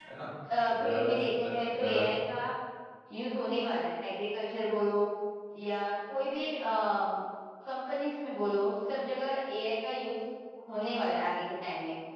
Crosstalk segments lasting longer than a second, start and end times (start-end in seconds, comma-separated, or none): 0.8-2.1